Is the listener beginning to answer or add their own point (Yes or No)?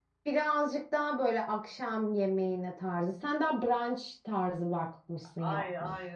Yes